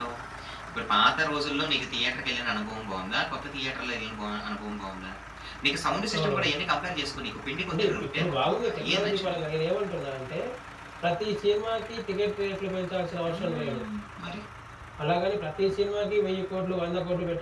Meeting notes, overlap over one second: present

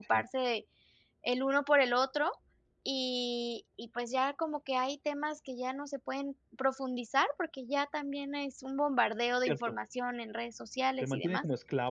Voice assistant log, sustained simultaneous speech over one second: none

